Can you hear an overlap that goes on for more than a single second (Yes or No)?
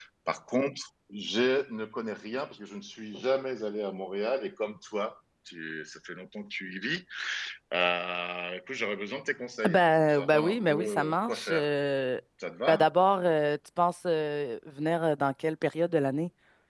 Yes